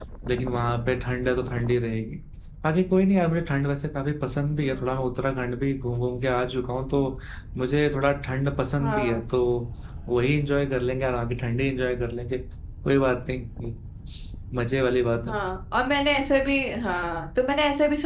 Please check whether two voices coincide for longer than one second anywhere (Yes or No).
No